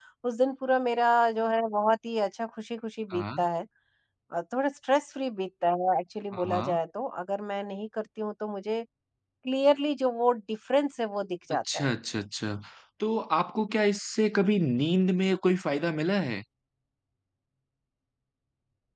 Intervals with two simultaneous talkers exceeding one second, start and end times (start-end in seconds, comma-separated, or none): none